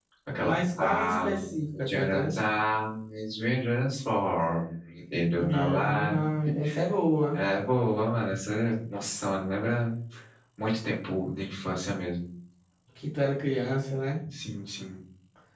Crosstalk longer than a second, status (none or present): present